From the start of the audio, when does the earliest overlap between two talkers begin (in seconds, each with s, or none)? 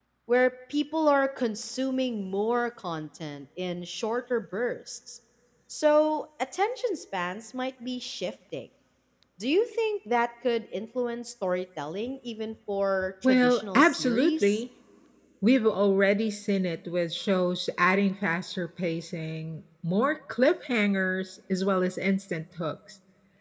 13.2 s